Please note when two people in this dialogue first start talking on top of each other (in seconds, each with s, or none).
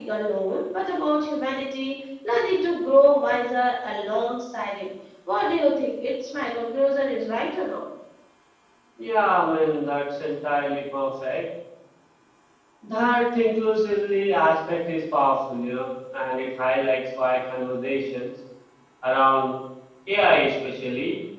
none